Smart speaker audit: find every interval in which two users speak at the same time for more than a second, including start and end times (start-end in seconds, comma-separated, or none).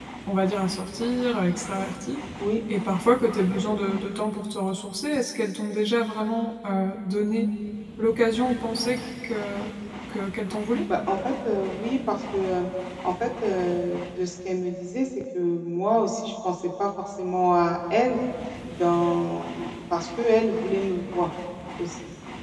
none